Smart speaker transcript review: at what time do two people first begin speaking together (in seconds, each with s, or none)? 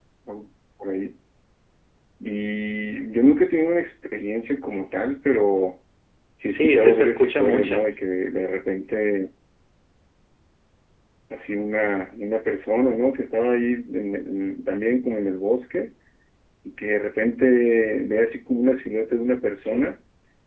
6.4 s